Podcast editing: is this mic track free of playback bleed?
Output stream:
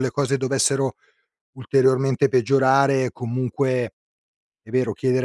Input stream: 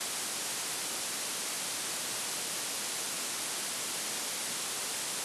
Yes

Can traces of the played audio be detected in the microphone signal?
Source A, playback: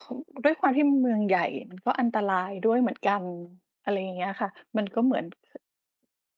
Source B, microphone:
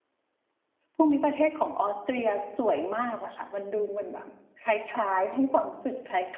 No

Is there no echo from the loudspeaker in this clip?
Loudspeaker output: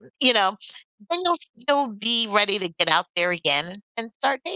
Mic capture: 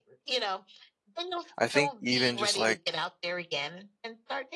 No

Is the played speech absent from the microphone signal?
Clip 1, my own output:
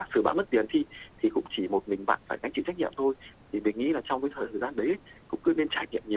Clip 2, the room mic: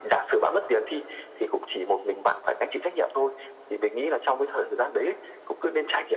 No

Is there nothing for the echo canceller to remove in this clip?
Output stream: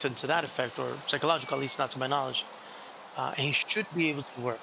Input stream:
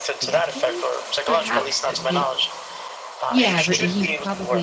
No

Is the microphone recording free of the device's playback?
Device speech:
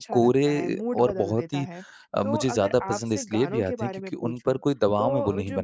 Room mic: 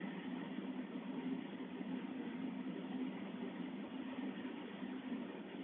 Yes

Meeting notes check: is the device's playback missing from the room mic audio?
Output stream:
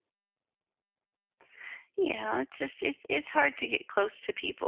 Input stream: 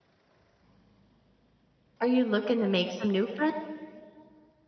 Yes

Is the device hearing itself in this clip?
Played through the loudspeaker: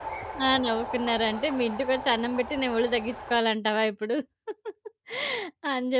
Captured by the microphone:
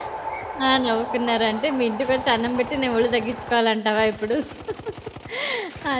Yes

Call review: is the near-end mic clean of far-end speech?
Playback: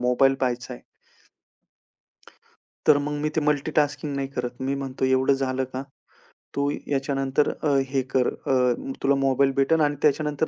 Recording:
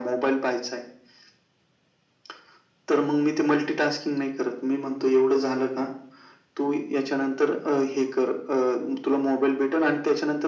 No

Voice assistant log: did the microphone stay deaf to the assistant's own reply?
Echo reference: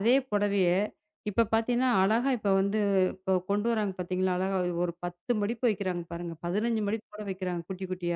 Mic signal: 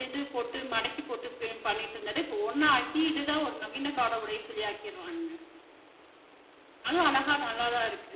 Yes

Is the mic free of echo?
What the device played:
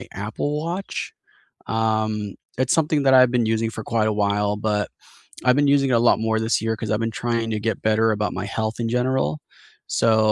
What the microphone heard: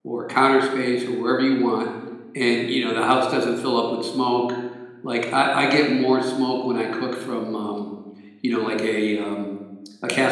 Yes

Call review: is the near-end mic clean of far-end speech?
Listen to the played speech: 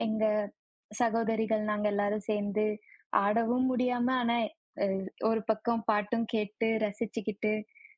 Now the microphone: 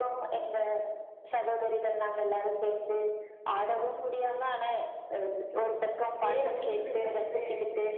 No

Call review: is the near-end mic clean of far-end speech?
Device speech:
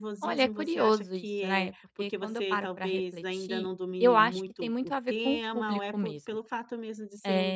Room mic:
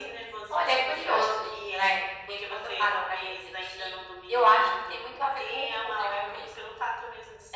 No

